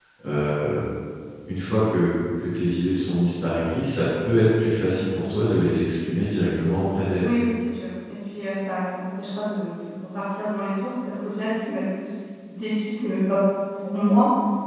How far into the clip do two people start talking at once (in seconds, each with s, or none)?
none